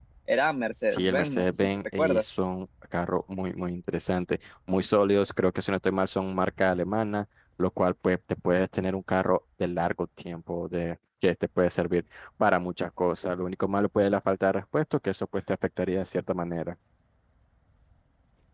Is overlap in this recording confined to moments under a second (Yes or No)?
No